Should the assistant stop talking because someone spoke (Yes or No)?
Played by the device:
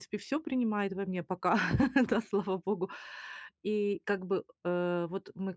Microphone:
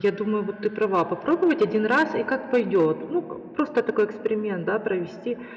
Yes